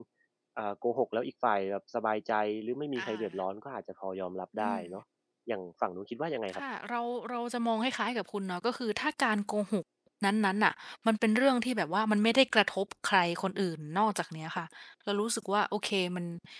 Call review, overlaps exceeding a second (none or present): none